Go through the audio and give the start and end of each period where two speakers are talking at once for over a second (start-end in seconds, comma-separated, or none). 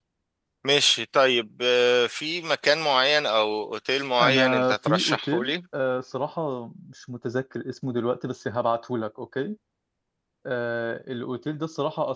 4.2-5.5